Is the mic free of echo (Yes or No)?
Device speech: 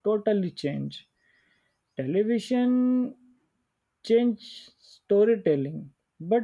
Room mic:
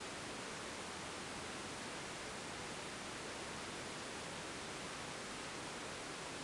Yes